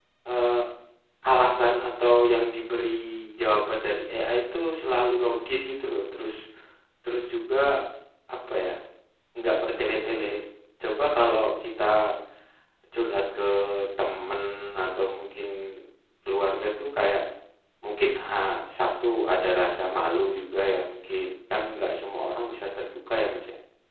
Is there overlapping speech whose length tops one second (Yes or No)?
No